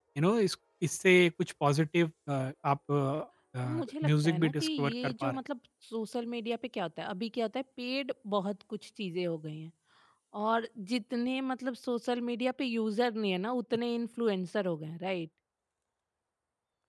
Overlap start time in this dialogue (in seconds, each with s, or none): 3.6 s